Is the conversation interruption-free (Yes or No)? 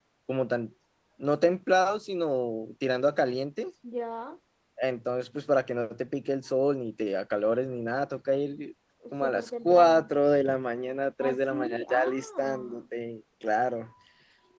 No